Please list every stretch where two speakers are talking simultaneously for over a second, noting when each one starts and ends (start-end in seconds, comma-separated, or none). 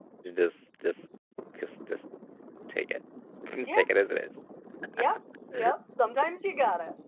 none